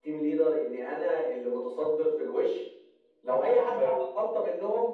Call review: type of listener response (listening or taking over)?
listening